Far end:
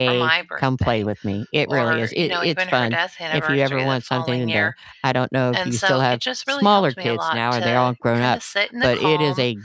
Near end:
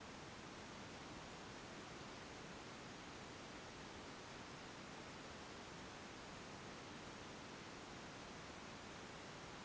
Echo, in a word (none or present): none